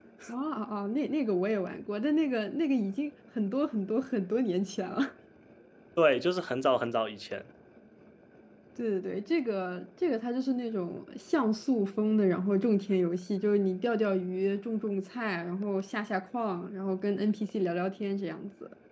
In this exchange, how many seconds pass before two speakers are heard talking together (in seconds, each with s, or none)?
none